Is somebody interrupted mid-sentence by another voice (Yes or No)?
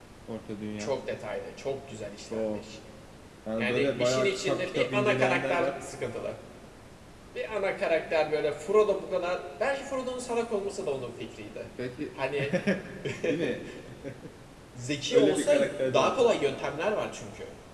Yes